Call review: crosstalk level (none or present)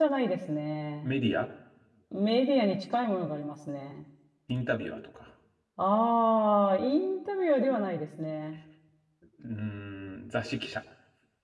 none